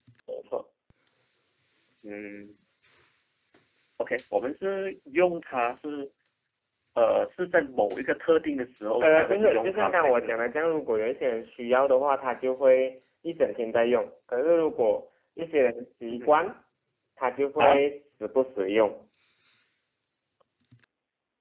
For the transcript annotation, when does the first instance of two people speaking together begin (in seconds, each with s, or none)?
9.0 s